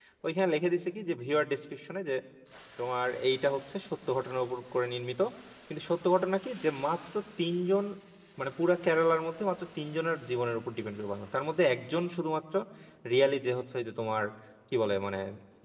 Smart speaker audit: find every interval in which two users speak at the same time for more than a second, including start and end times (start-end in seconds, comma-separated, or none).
none